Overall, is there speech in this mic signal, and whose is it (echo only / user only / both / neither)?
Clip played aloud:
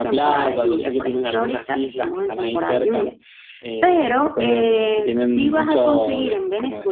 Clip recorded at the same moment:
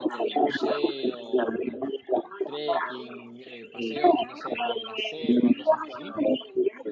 both